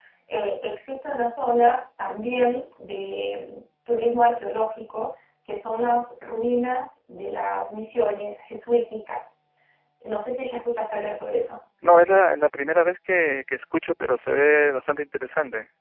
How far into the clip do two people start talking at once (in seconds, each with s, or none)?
none